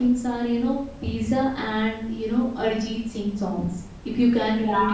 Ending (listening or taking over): listening